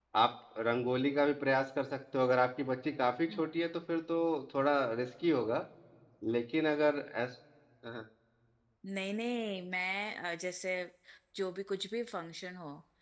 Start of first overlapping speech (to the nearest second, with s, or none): none